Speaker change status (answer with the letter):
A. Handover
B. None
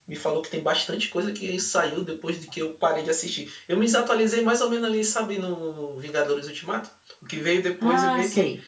B